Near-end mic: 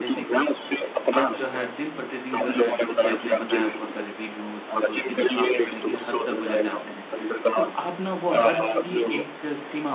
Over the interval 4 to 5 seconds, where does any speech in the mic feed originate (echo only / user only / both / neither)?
both